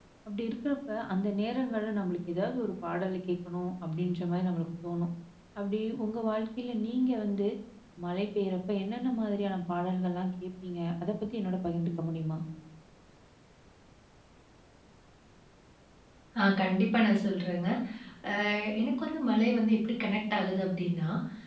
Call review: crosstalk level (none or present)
none